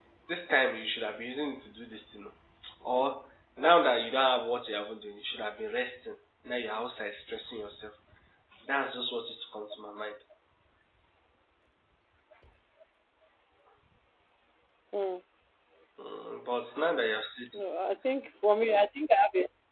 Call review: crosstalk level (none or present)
none